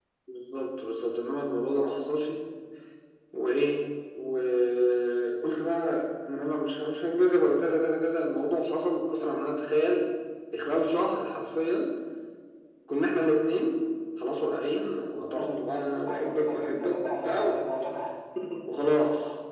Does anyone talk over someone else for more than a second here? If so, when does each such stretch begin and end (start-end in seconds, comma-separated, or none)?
16.0-17.6